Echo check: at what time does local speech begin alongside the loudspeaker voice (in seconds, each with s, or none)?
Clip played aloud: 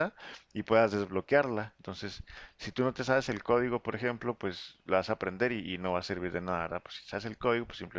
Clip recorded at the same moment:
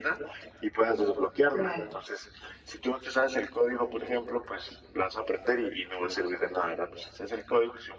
1.5 s